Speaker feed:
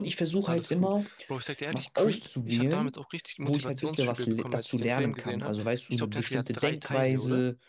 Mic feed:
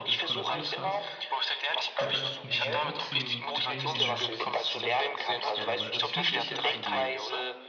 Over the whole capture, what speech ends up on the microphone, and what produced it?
both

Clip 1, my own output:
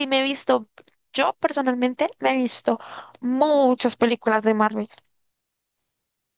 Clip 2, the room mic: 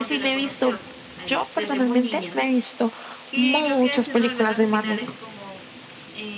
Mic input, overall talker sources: both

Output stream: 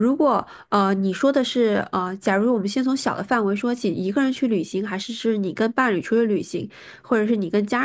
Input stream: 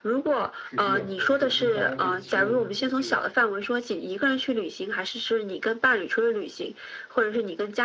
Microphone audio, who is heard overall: both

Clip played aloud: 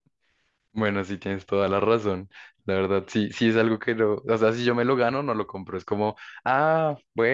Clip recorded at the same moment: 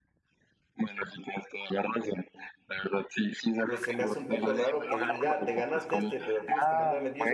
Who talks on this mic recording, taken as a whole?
both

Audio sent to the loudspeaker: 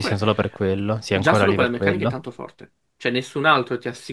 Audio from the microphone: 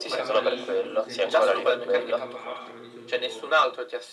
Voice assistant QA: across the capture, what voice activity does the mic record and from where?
both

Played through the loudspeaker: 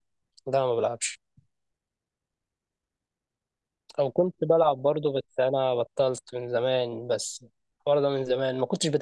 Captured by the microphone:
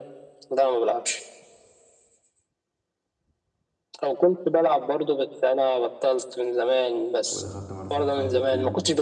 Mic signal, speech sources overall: both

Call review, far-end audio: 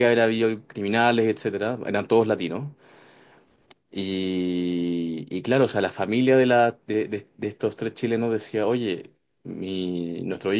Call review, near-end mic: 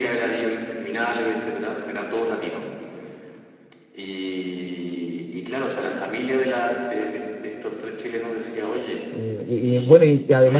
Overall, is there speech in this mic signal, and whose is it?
both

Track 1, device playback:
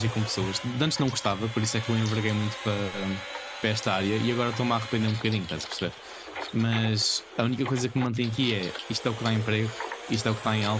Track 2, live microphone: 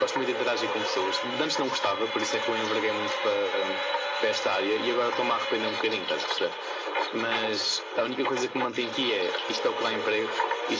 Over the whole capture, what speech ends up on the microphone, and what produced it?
echo only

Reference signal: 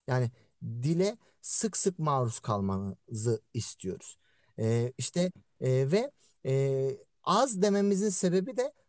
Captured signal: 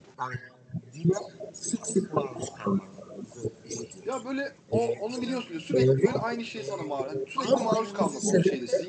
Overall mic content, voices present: both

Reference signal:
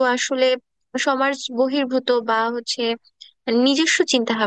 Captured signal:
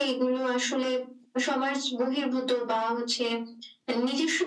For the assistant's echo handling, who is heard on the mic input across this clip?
echo only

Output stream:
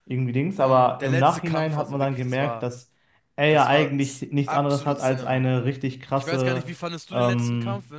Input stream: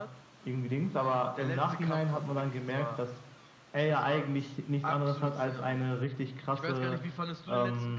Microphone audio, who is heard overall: echo only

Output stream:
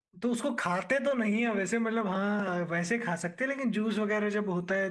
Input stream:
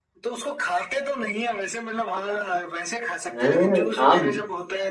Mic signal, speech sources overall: both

